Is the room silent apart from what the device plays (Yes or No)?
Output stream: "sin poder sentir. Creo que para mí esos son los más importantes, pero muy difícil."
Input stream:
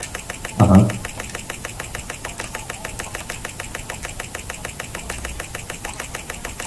No